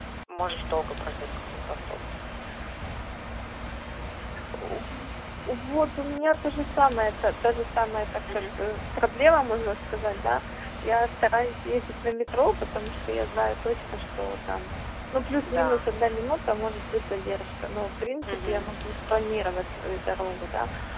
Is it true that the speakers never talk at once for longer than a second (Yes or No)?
Yes